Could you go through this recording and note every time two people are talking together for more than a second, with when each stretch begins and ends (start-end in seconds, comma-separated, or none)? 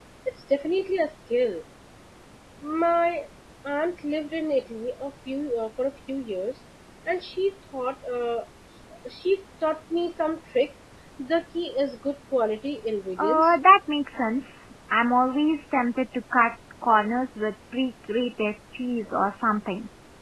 none